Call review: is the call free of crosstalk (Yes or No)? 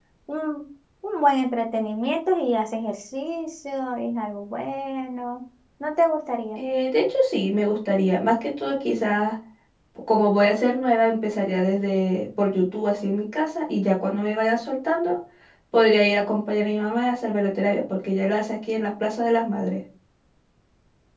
Yes